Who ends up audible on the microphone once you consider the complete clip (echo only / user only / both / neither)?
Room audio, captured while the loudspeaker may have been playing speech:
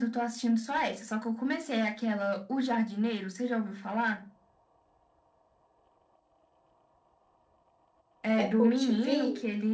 both